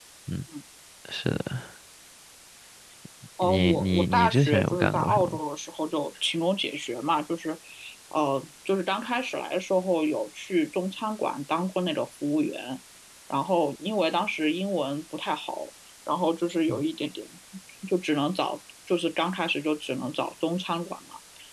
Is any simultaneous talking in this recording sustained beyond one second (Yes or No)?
Yes